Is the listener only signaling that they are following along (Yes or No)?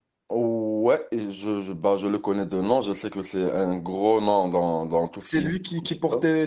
No